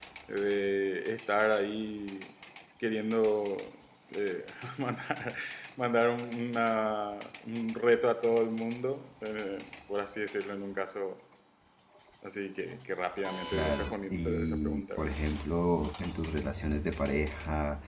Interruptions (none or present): present